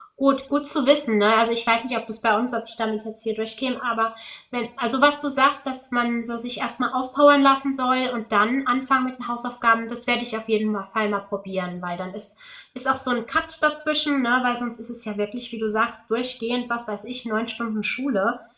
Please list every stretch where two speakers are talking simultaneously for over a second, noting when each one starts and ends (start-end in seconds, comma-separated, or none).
none